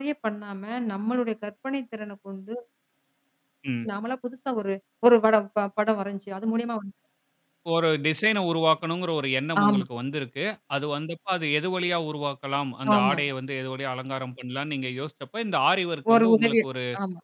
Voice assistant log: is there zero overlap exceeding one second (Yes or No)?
Yes